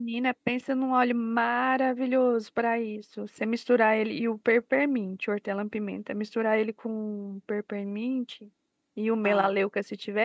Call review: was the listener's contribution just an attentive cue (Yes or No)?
Yes